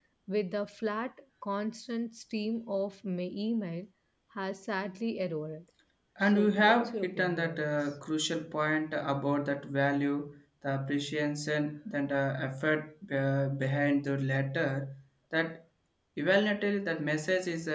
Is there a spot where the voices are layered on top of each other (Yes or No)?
Yes